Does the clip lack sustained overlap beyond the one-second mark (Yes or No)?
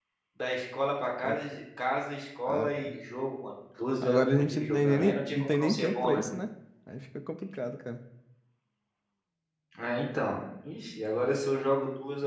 No